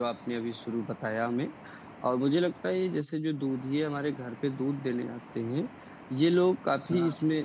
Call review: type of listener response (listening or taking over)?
listening